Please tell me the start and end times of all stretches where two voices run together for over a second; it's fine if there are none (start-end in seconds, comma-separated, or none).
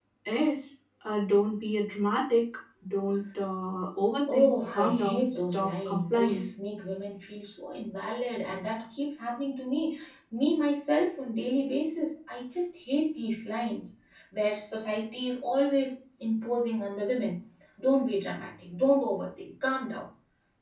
4.3-6.4